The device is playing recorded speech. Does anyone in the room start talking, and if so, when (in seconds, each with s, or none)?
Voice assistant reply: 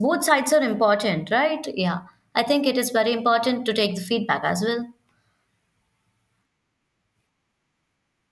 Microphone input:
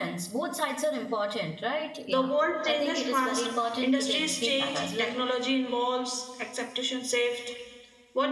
2.1 s